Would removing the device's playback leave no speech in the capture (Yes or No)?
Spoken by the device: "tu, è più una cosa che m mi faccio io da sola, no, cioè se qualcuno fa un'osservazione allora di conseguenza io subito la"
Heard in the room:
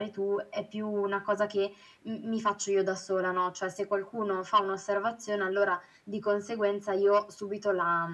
Yes